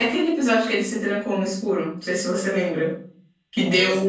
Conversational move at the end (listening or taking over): listening